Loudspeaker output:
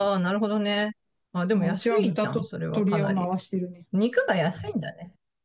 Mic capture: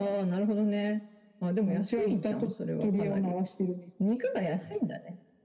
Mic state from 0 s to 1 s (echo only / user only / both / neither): echo only